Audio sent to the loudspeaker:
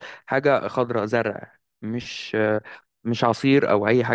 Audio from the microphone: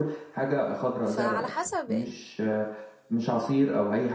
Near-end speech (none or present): present